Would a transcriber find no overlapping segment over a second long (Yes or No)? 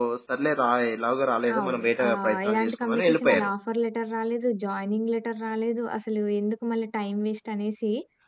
No